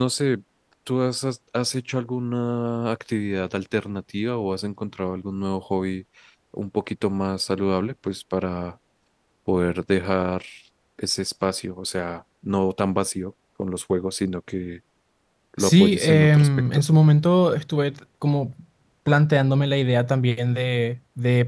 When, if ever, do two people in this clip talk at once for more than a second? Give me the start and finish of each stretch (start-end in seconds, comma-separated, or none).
15.6-16.8